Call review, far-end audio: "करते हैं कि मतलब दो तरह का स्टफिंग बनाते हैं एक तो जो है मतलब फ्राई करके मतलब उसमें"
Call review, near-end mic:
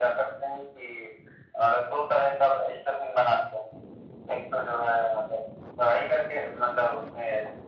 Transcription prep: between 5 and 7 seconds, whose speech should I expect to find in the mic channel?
echo only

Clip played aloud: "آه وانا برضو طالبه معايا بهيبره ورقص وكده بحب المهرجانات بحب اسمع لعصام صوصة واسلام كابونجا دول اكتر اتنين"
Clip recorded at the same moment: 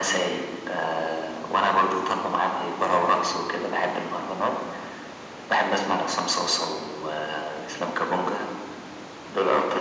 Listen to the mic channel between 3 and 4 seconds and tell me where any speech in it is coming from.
echo only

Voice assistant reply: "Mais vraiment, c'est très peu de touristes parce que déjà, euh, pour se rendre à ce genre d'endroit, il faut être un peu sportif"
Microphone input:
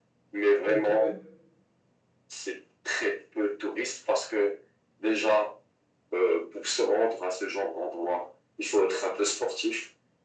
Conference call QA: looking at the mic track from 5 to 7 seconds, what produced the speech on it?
echo only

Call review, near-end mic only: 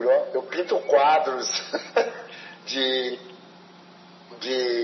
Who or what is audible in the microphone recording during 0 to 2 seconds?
echo only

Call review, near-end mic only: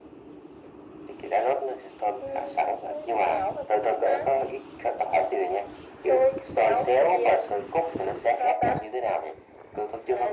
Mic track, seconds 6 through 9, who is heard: echo only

